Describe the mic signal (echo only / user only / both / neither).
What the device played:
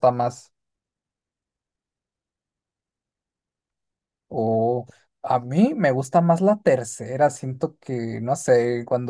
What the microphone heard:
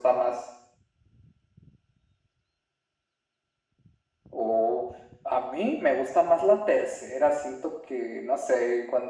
echo only